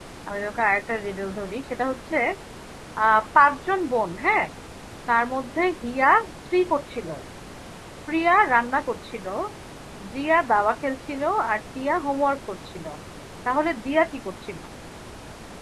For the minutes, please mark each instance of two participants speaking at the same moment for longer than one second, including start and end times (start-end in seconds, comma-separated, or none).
none